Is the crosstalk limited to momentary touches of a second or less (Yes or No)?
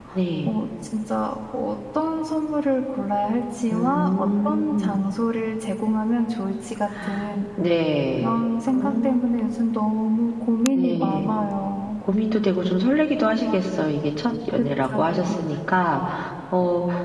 No